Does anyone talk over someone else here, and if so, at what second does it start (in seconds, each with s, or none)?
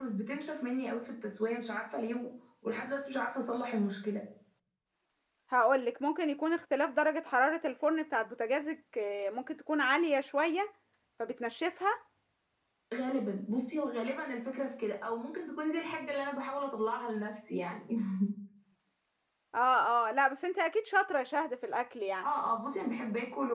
none